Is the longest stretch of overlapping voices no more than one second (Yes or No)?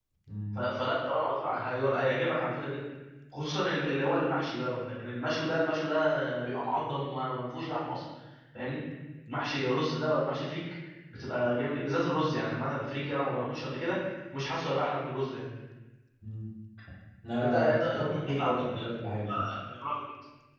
No